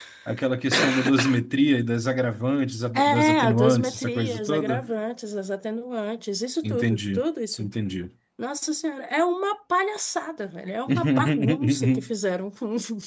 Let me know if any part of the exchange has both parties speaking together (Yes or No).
Yes